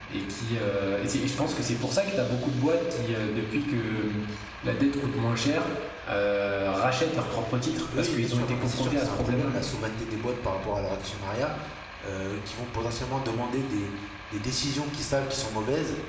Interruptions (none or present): present